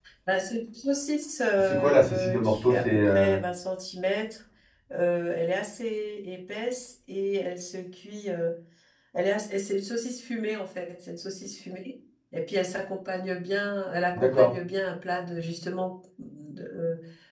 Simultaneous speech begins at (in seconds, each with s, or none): 1.6 s